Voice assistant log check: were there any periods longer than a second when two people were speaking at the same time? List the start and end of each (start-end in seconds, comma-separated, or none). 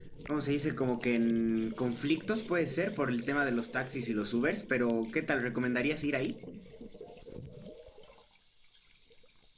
none